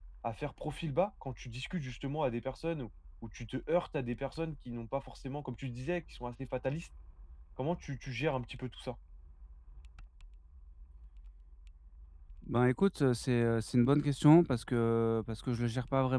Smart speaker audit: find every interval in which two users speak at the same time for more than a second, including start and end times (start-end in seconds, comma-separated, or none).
none